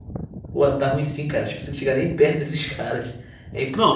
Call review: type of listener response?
taking over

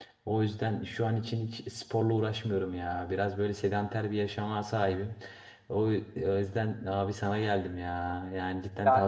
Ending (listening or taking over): taking over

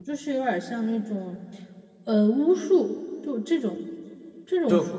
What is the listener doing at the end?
taking over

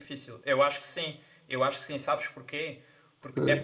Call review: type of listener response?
listening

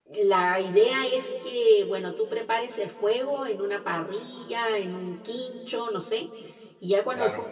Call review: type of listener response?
listening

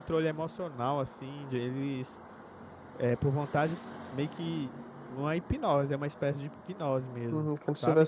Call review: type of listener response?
taking over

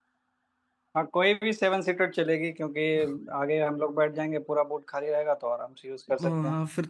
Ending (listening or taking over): taking over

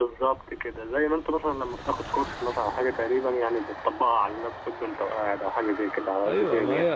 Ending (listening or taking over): taking over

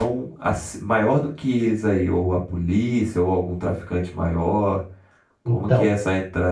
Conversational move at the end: listening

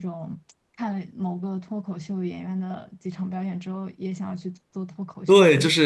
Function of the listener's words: taking over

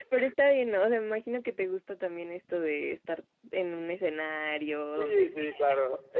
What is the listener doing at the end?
taking over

